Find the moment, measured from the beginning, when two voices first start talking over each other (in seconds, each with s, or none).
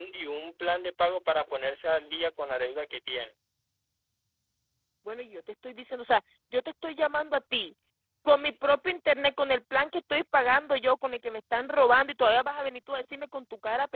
none